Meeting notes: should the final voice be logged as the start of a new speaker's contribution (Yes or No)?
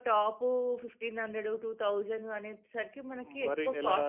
Yes